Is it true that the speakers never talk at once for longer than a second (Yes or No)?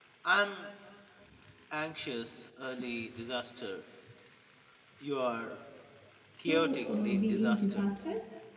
No